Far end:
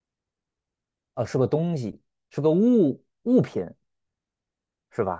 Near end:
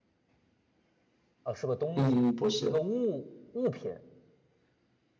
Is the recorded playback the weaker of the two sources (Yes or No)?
Yes